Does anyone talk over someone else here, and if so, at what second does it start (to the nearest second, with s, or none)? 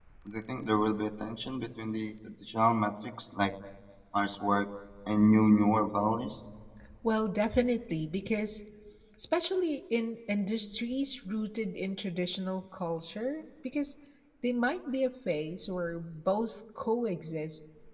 none